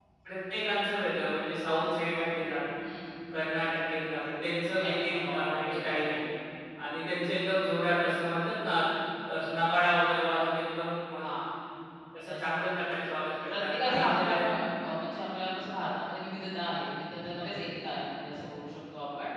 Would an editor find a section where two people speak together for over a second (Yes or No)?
Yes